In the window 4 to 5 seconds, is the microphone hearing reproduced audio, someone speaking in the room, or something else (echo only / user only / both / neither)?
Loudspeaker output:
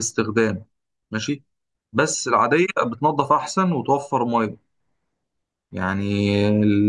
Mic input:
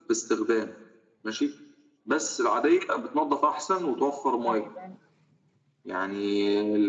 both